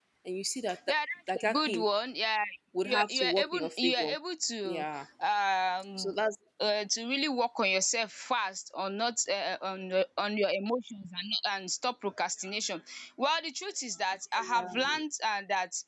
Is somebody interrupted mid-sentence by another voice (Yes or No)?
Yes